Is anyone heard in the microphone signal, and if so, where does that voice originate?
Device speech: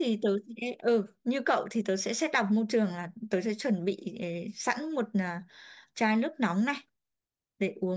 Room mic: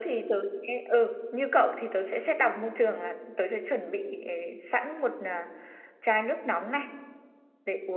echo only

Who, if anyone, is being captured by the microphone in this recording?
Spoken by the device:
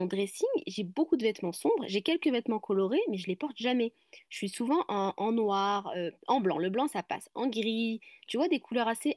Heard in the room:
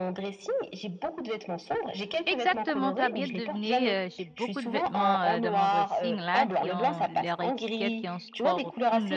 both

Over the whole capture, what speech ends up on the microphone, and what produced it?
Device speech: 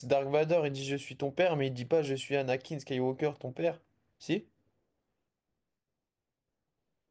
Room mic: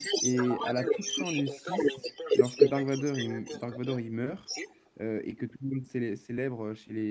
both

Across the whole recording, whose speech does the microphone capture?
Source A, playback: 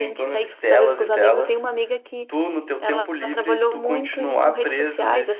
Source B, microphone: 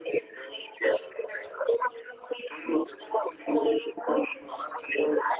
echo only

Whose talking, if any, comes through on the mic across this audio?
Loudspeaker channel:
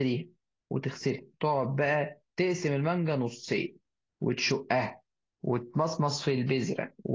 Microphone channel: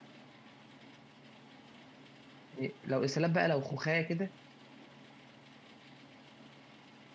user only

